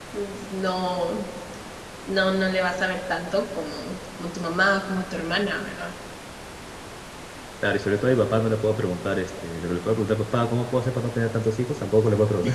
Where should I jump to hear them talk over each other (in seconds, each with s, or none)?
none